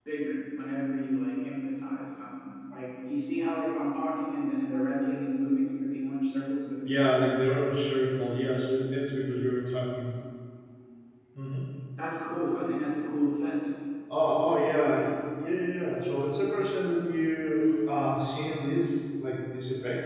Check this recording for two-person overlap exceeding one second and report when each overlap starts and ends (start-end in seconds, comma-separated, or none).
none